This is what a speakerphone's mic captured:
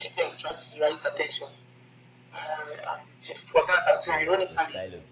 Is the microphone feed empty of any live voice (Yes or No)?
No